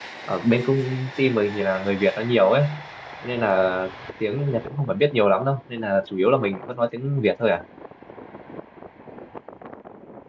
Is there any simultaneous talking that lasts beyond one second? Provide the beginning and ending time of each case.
none

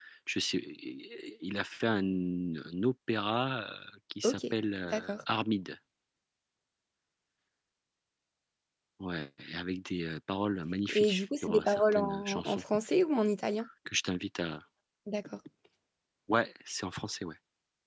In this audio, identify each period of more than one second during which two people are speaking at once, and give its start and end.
10.9-12.6

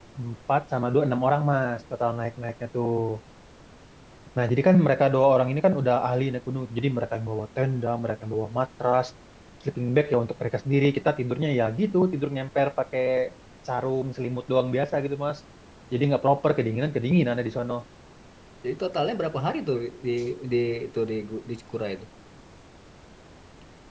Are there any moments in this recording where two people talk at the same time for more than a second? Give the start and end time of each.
none

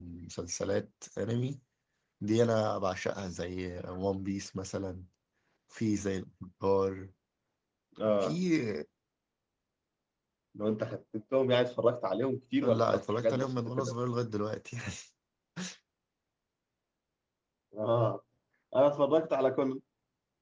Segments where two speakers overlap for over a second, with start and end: 12.6-13.9

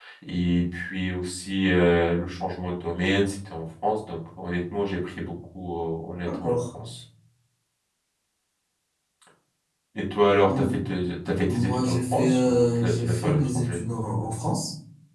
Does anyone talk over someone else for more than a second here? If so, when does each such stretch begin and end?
11.5-13.8

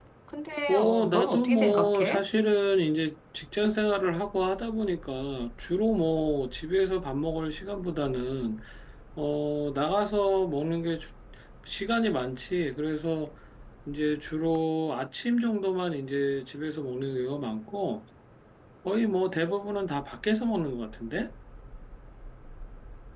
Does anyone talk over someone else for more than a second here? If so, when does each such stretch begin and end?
0.7-2.2

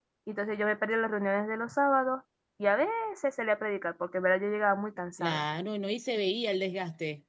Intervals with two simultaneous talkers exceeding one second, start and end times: none

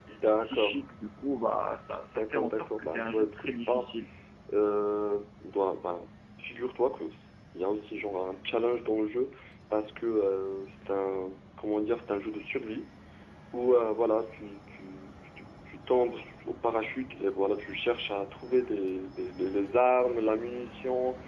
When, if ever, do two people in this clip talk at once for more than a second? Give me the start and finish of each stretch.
2.1-3.9

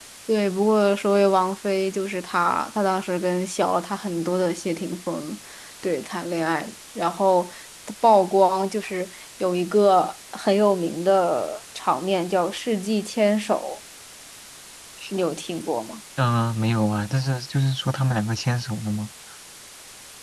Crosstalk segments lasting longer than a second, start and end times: none

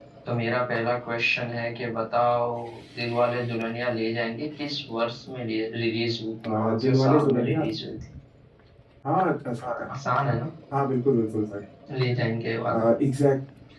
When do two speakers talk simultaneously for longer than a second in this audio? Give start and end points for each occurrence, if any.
6.4-7.6

